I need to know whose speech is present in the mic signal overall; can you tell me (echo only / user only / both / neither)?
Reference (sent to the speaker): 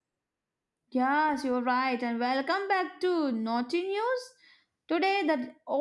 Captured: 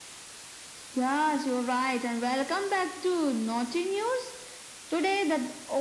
echo only